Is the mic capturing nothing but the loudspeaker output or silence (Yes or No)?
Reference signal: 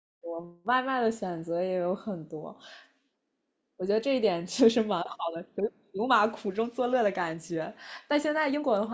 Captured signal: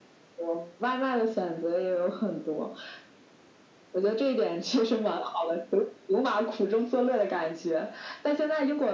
Yes